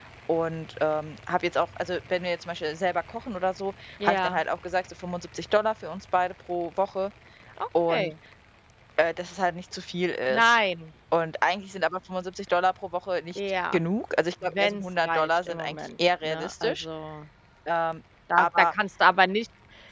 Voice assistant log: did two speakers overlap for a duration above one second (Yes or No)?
Yes